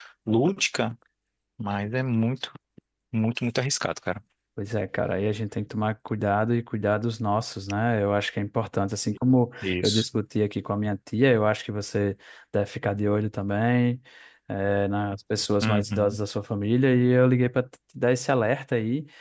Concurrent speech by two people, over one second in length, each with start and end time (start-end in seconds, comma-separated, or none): none